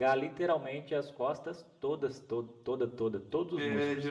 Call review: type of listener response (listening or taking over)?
taking over